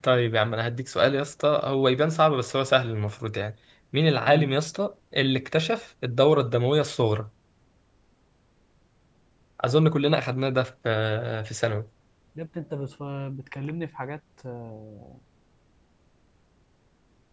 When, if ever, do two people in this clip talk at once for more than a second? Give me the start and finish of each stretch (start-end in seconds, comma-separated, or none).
none